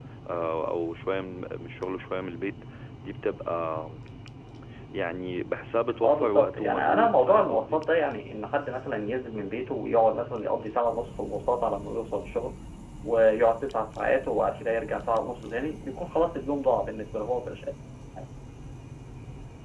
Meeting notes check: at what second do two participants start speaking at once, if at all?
6.0 s

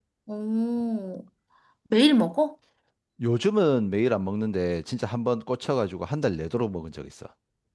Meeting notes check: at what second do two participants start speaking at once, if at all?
none

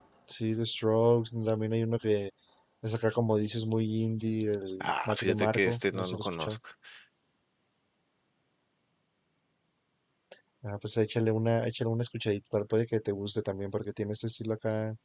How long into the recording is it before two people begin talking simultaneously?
4.8 s

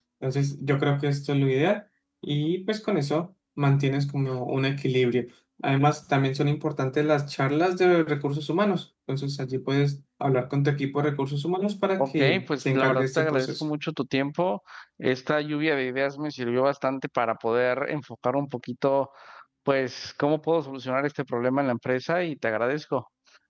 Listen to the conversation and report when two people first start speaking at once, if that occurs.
12.0 s

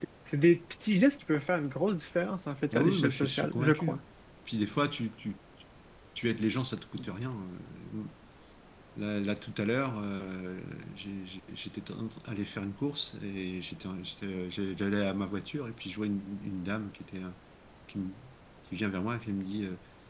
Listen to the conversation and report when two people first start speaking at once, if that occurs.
2.7 s

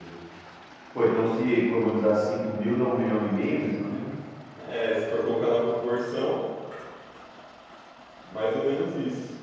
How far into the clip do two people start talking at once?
none

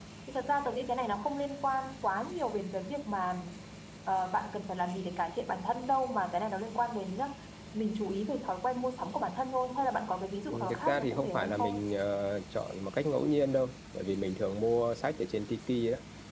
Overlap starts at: 10.5 s

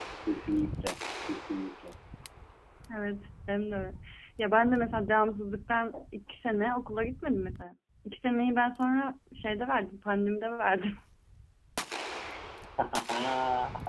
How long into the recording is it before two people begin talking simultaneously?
none

